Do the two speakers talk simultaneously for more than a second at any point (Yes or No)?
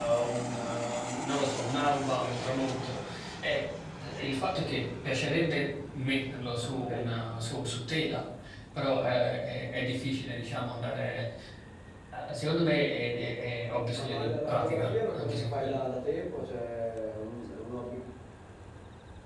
Yes